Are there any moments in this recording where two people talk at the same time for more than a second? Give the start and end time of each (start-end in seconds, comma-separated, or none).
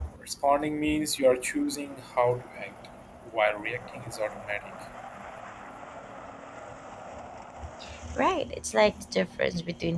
none